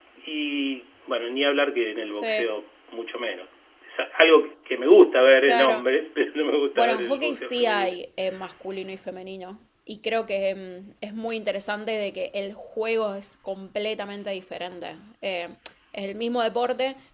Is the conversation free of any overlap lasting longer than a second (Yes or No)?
No